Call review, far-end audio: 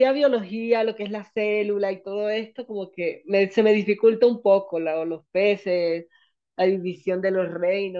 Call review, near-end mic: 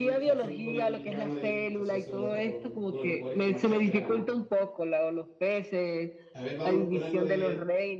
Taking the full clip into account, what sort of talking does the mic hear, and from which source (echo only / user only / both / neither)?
both